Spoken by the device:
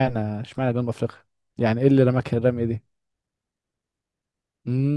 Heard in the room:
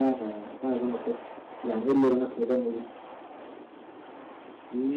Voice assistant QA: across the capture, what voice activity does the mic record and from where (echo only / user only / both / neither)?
echo only